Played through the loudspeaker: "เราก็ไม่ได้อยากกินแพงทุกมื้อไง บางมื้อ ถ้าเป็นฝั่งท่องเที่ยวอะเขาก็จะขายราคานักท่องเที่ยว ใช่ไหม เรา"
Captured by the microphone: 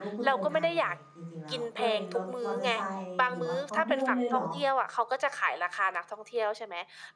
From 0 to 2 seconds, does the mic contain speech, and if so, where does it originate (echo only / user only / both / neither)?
both